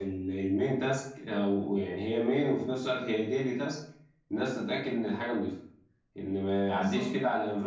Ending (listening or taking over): listening